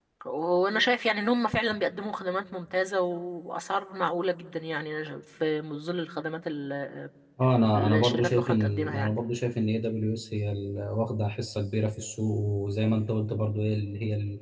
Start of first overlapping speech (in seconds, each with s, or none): 7.8 s